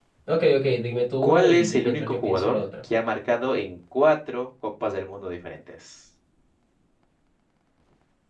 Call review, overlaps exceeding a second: present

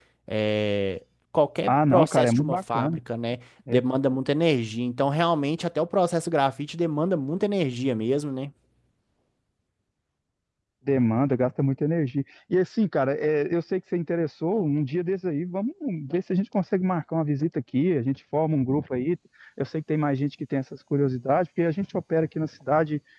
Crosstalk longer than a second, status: present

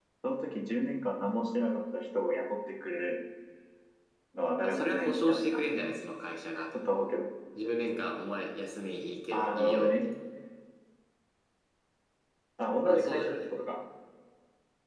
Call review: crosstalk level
present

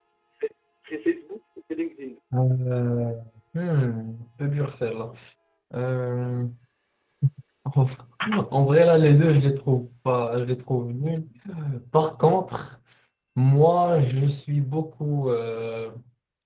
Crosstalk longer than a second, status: none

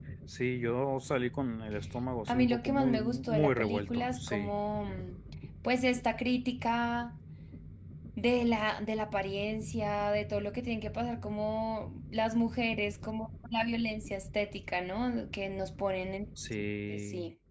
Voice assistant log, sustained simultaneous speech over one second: present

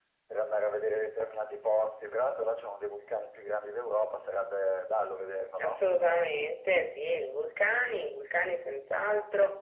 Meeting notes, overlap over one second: none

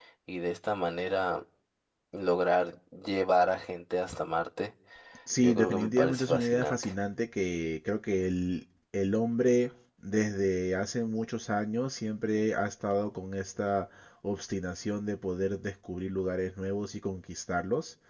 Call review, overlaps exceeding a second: present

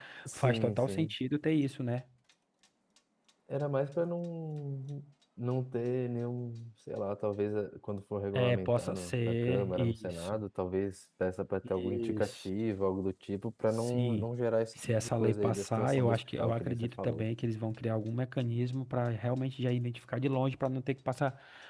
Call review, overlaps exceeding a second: present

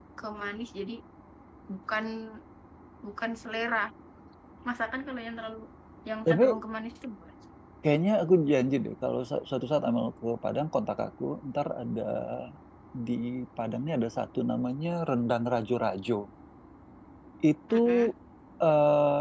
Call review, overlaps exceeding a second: none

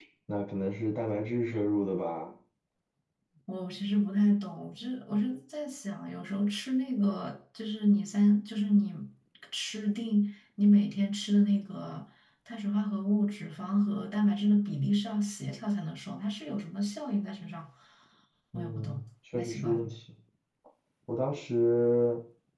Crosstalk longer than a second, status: none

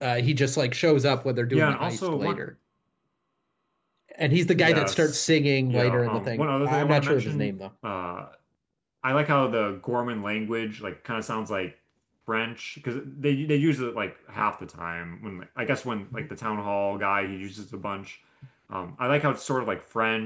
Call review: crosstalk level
present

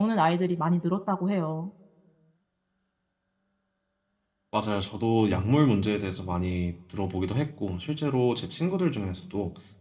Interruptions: none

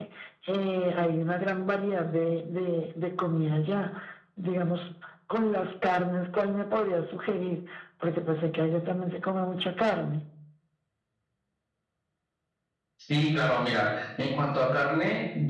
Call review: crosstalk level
none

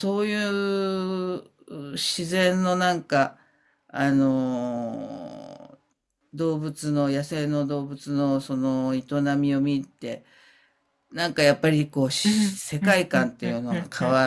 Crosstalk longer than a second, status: present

